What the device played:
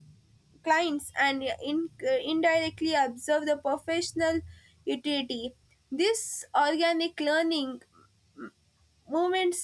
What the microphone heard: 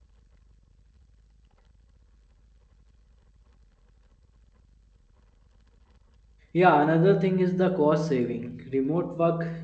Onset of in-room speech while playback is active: 6.5 s

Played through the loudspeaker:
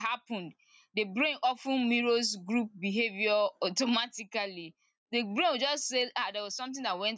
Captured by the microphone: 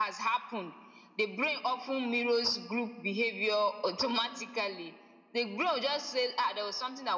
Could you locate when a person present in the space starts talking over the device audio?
none

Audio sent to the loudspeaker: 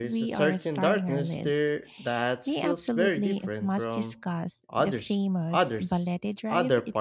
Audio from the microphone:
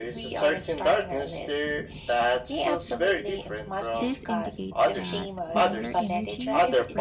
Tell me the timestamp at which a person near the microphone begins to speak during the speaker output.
3.9 s

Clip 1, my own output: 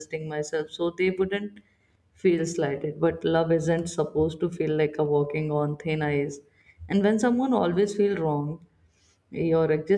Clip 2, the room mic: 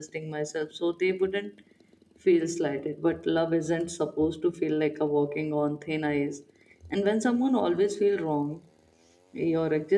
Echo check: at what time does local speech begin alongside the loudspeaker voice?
none

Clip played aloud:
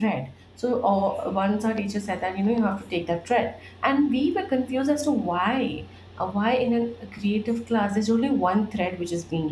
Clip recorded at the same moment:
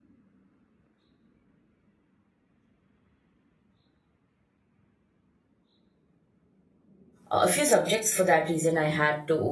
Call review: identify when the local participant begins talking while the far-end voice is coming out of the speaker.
7.3 s

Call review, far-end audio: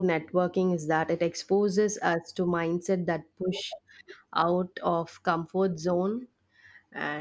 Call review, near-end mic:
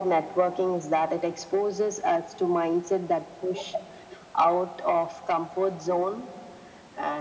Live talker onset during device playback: none

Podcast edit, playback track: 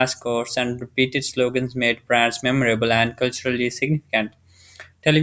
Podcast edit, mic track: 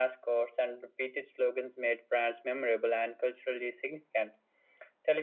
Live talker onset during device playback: none

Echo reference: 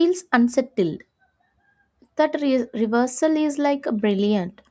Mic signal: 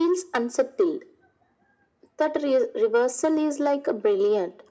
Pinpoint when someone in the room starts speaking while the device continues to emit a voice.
none

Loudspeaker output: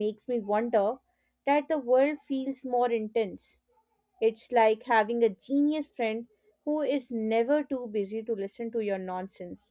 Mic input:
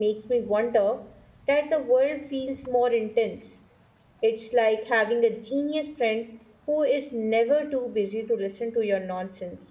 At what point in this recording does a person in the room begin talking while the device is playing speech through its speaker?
none

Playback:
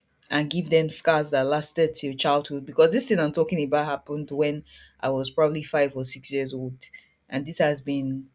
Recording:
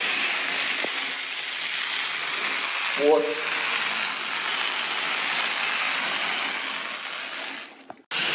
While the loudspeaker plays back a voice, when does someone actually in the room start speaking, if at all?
2.9 s

